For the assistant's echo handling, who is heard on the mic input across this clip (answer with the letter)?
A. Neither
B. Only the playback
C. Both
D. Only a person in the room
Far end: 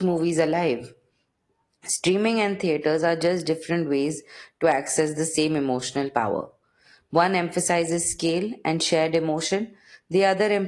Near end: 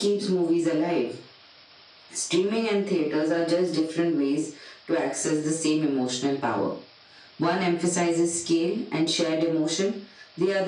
B